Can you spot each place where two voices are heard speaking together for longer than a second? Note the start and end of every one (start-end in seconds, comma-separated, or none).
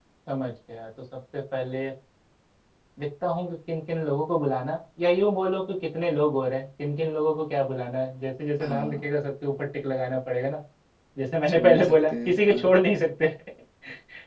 11.5-12.7